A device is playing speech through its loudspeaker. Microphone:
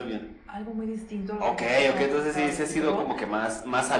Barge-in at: none

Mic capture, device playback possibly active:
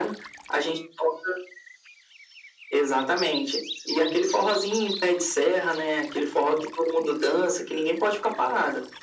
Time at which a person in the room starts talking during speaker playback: none

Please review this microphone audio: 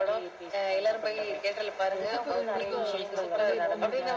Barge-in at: 1.9 s

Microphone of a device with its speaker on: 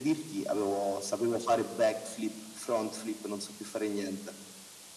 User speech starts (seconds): none

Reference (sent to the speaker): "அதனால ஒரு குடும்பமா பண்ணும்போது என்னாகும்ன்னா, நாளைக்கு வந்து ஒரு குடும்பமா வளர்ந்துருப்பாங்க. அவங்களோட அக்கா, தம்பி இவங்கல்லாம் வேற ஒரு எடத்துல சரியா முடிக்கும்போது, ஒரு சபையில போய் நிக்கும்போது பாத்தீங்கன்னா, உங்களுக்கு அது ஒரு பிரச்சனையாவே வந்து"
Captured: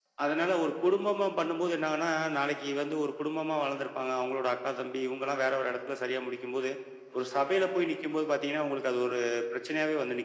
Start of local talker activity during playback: none

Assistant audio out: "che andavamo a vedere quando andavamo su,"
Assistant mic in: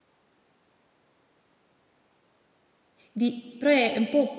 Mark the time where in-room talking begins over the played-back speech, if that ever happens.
3.1 s

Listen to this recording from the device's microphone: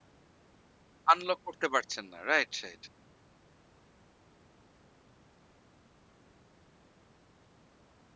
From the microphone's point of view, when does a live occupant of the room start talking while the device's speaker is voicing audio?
1.1 s

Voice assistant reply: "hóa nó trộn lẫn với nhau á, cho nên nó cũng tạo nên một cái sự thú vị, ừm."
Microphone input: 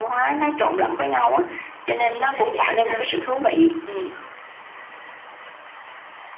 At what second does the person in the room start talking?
1.9 s

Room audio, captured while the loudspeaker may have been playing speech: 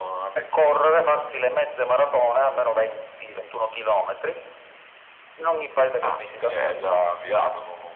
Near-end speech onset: none

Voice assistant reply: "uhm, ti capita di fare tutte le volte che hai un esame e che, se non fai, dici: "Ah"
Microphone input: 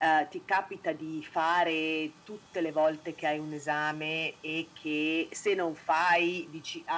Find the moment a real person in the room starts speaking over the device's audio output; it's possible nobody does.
none

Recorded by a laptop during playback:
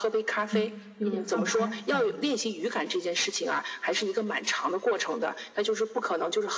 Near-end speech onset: 0.5 s

